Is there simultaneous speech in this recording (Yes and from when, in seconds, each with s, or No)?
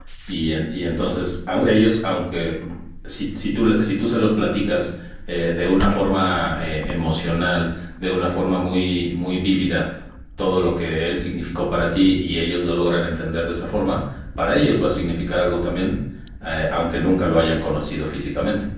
No